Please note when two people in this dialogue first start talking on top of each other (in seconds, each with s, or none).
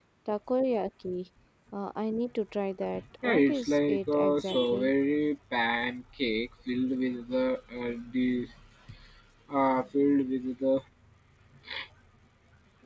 3.2 s